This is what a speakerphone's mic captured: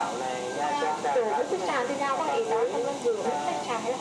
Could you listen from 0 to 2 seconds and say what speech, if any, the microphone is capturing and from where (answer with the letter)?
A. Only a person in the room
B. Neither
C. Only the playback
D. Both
C